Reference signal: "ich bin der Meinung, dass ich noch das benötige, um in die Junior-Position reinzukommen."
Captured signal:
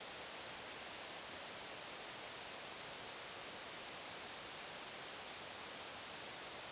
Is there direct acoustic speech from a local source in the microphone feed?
No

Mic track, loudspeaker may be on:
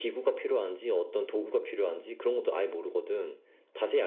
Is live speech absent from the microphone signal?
Yes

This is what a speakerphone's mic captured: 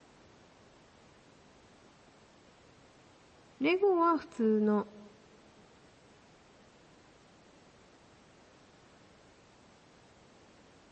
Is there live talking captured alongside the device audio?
Yes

